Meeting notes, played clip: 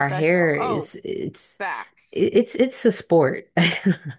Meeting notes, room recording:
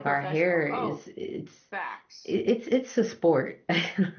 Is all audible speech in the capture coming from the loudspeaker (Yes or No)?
Yes